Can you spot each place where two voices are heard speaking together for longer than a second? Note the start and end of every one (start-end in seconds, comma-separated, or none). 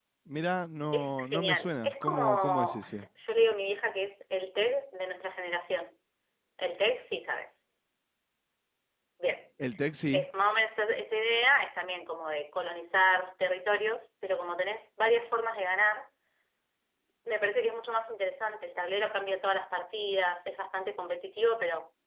0.9-2.8